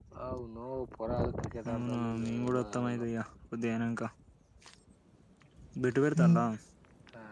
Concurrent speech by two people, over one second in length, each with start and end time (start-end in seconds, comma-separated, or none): 1.7-3.0